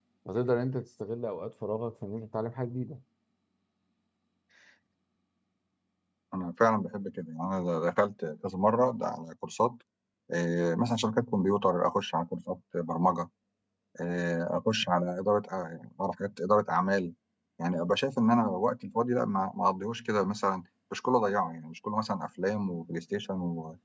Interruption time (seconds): none

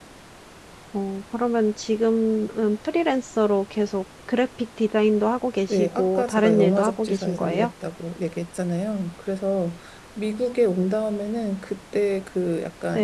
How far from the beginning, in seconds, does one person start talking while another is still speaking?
5.7 s

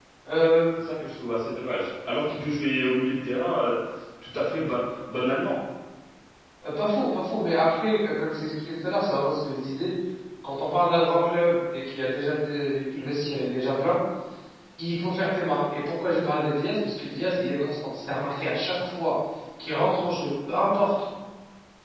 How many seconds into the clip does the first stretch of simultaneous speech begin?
none

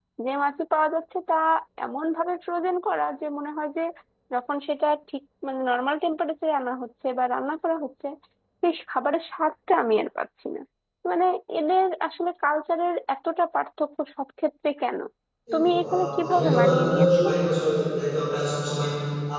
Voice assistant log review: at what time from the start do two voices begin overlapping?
15.5 s

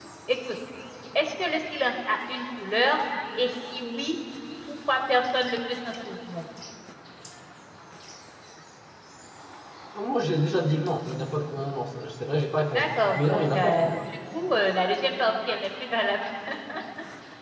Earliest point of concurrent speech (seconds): 12.7 s

